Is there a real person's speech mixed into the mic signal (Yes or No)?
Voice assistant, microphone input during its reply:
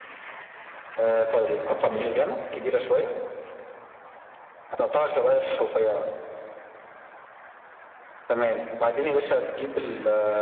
Yes